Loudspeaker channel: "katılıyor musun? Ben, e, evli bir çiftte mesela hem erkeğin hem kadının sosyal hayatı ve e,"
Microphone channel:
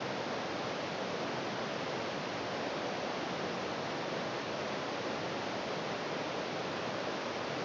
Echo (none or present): none